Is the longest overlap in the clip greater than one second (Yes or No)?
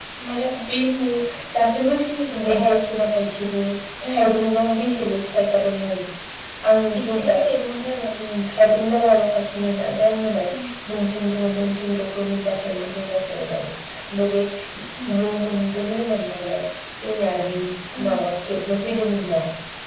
No